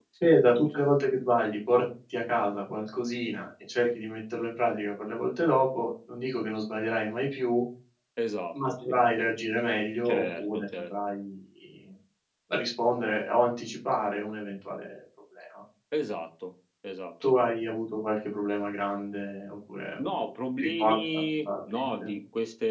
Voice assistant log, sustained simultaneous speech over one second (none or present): present